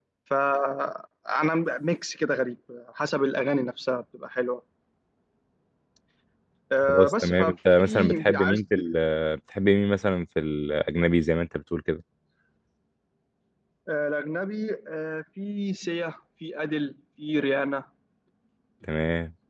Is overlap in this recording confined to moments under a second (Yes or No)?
No